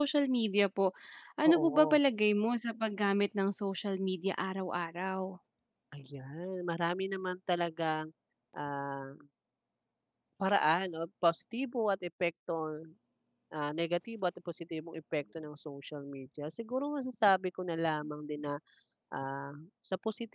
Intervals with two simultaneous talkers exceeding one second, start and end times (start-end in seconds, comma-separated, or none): none